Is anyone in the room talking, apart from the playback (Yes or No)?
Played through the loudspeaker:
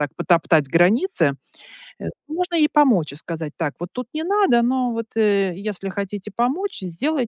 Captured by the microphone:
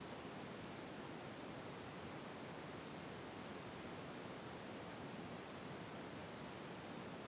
No